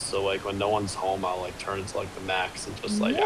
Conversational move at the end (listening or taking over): taking over